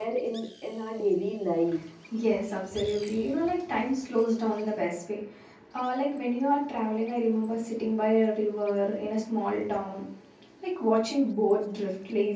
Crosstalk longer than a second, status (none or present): none